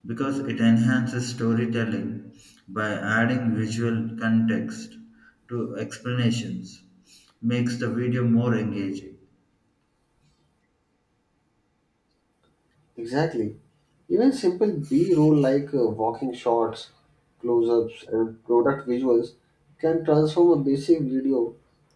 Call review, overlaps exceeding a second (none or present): none